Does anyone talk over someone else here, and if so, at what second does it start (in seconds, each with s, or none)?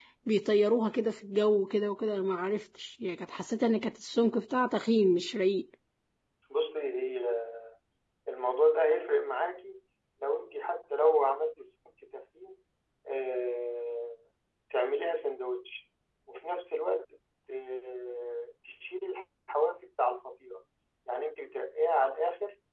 none